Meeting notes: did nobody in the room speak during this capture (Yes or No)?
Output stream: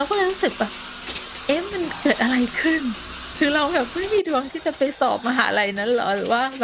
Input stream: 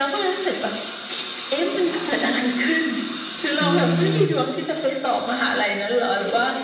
No